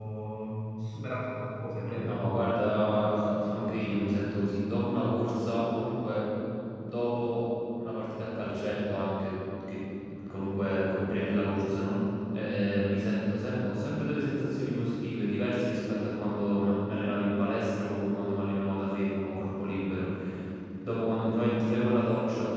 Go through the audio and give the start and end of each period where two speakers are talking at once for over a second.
2.7-4.0

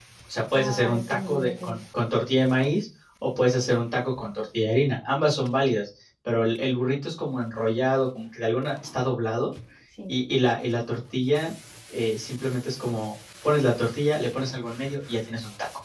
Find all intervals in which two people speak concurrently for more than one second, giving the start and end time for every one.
0.5-1.8

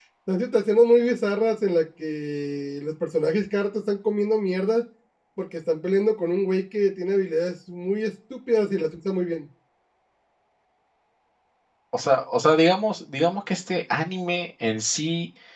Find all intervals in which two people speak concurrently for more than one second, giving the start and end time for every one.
none

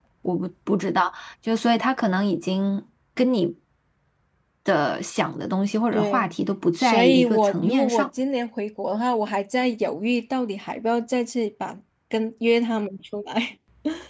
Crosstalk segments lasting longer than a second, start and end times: 6.8-8.1

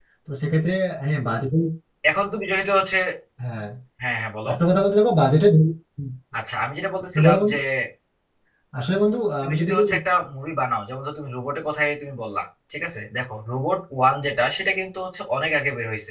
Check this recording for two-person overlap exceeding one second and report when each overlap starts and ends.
none

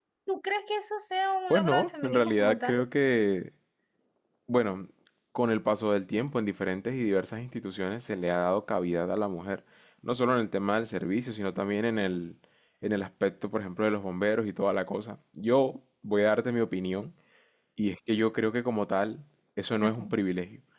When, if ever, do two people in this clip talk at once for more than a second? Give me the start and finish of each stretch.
1.5-2.8

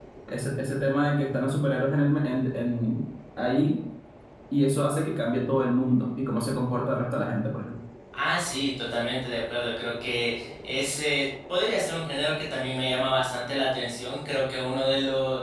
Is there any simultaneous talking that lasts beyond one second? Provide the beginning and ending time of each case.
none

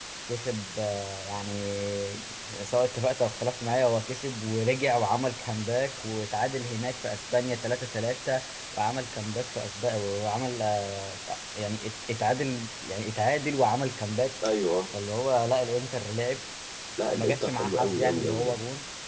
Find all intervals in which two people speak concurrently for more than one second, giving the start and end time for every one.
17.1-18.6

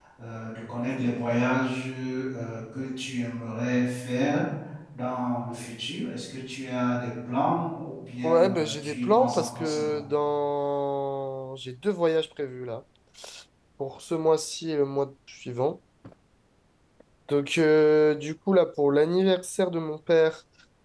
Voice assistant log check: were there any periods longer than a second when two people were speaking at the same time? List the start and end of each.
8.2-10.0

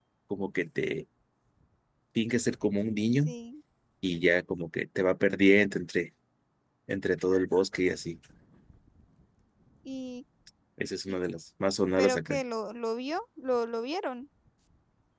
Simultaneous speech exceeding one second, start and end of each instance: none

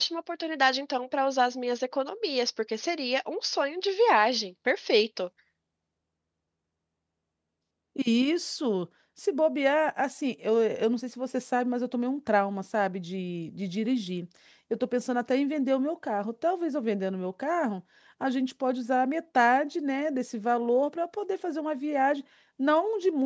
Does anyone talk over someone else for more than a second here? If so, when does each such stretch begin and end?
none

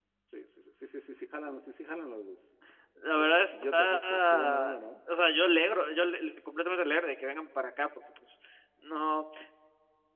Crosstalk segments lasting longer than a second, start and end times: 3.2-4.8

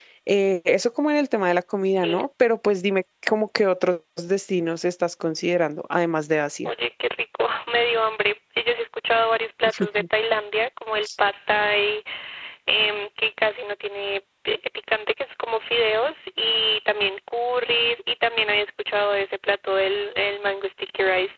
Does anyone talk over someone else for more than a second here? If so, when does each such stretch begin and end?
none

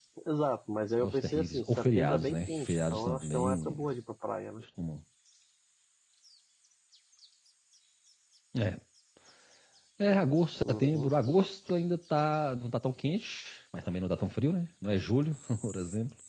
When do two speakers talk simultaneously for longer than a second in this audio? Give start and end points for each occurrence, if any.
1.0-3.9

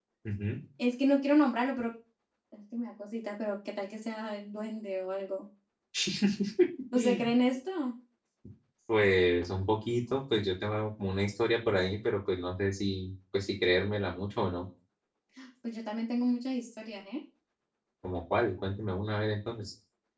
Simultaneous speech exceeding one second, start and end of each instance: none

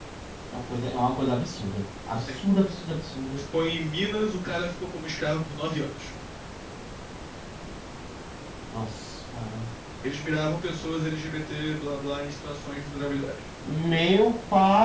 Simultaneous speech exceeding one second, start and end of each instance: none

